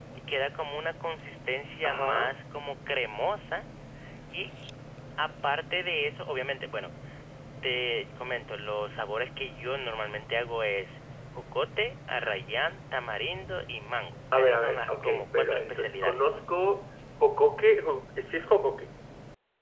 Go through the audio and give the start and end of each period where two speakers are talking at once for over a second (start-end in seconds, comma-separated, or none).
14.4-16.3